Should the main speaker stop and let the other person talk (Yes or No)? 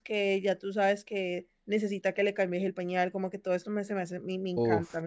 Yes